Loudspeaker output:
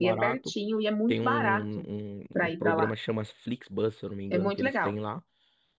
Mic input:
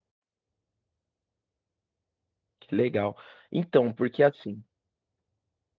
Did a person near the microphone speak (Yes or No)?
Yes